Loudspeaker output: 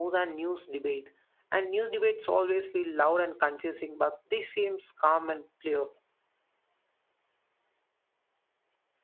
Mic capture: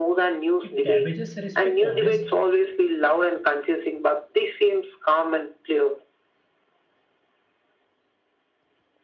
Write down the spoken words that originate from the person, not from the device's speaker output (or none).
It damages respect, honest